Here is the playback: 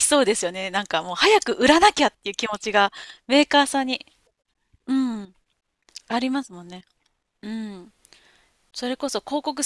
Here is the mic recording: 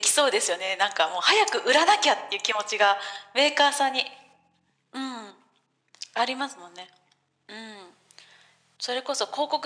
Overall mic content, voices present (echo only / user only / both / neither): echo only